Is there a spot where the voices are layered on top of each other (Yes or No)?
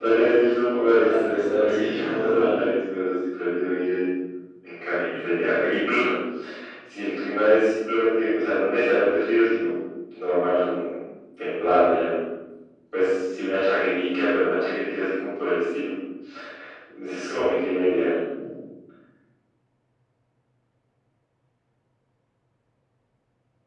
Yes